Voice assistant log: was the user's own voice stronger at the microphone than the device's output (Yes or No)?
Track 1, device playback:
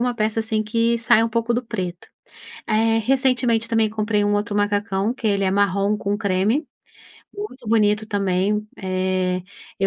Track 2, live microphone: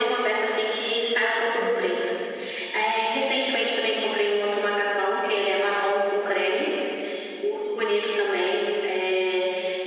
No